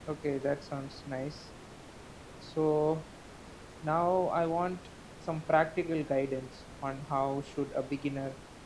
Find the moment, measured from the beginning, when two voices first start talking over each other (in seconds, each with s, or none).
none